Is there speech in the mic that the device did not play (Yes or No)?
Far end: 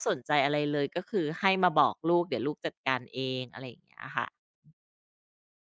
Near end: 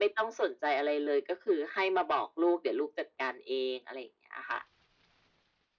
No